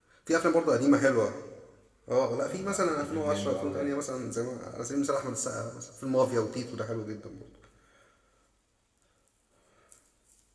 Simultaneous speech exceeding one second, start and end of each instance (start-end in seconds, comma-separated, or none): 2.4-4.0